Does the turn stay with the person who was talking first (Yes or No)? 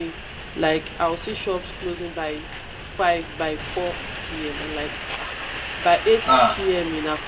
Yes